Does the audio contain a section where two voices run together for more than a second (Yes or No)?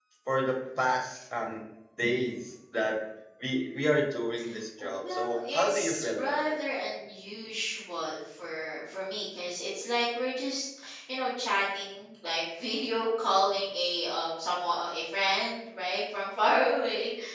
Yes